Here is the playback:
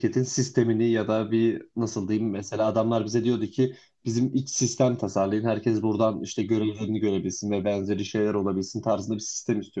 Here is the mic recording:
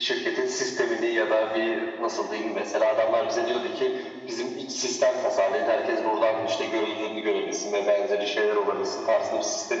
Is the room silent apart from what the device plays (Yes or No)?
Yes